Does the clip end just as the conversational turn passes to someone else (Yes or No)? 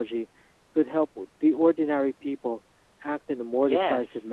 Yes